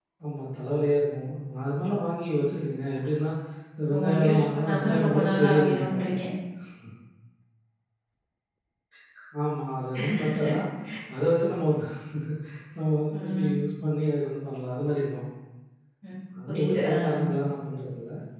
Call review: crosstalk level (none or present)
present